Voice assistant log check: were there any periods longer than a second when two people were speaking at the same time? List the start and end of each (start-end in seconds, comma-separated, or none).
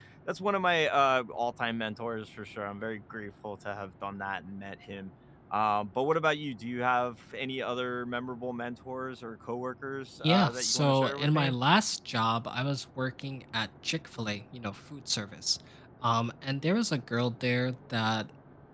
10.2-11.5